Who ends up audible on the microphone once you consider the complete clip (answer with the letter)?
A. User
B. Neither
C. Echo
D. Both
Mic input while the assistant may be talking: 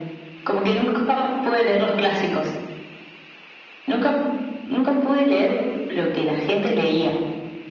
C